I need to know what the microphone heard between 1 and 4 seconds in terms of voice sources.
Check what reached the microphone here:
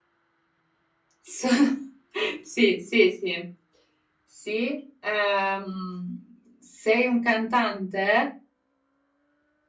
user only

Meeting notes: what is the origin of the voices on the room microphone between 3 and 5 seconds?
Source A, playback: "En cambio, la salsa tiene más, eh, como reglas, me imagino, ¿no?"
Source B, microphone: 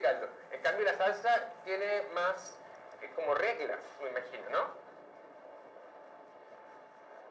echo only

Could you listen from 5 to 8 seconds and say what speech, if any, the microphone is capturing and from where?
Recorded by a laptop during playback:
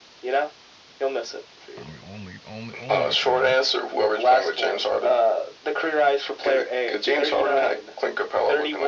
echo only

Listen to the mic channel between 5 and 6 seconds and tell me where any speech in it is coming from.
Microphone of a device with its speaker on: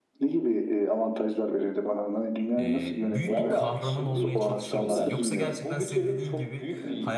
both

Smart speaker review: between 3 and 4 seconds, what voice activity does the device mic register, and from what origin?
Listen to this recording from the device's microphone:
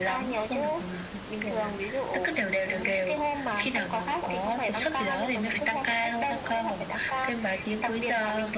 echo only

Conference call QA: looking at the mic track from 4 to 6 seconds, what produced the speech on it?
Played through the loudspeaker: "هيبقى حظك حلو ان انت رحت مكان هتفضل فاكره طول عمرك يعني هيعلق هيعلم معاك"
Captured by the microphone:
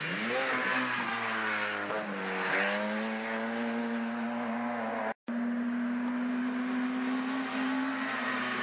neither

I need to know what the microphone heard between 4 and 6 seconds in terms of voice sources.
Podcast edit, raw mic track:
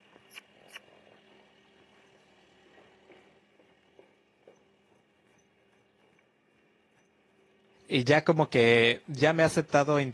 neither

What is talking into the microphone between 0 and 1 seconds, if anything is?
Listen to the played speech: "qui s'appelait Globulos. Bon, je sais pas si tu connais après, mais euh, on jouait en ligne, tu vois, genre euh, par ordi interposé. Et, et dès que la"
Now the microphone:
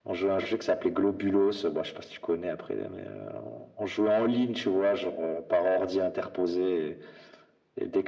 echo only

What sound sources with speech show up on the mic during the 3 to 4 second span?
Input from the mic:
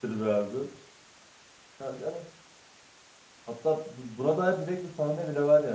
user only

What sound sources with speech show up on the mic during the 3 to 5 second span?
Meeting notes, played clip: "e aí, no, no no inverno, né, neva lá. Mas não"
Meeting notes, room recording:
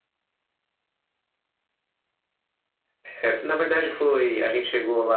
user only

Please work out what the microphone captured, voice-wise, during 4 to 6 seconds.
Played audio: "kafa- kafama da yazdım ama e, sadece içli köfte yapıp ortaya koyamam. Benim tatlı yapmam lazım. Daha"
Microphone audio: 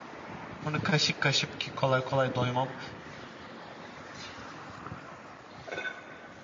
neither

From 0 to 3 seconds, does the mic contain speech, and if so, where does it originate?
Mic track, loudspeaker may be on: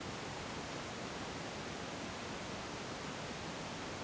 neither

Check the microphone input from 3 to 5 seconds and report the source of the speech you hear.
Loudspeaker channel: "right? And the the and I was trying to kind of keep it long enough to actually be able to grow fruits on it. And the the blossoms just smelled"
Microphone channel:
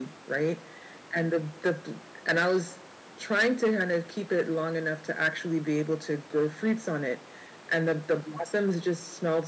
echo only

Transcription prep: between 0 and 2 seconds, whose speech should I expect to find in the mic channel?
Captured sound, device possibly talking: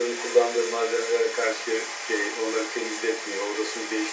echo only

